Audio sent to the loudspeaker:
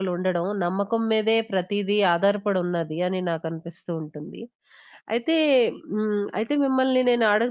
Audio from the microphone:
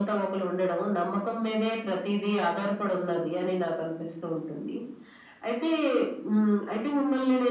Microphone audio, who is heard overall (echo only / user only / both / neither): echo only